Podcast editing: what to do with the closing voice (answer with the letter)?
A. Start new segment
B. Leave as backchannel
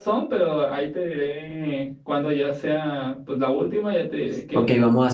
A